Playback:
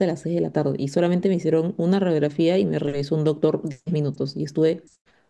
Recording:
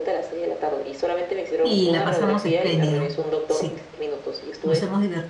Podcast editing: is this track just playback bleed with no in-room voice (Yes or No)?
No